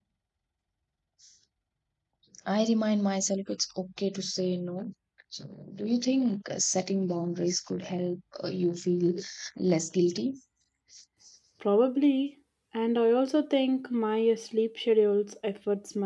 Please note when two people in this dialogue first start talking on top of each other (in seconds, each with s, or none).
none